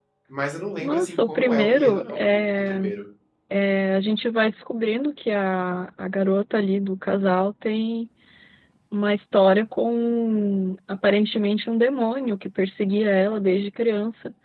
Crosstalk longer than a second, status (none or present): present